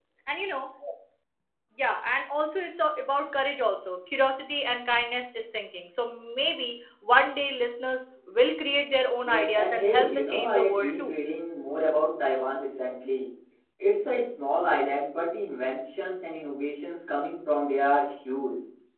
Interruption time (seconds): 9.2 s

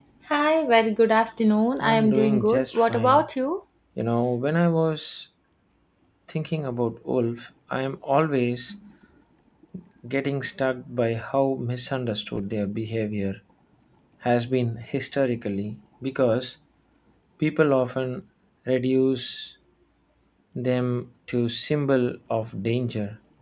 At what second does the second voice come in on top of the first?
1.8 s

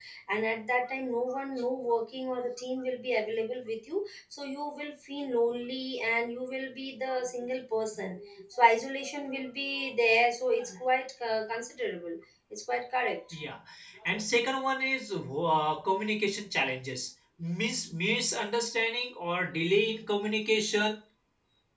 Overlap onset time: none

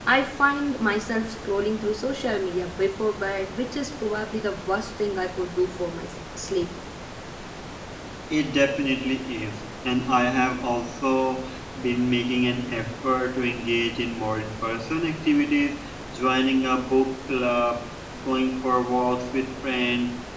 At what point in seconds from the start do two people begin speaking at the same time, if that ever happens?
none

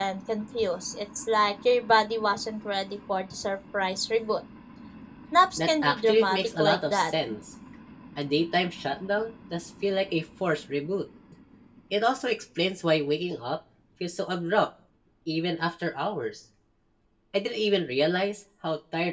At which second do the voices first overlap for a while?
5.6 s

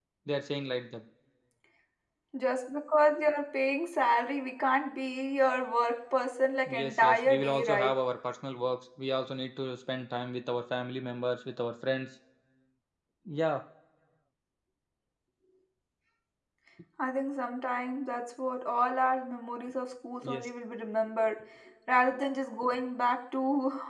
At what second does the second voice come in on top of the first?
6.7 s

